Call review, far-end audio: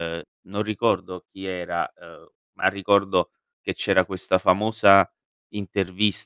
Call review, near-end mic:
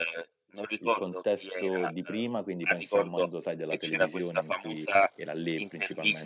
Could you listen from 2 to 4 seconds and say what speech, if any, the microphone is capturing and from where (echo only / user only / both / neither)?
both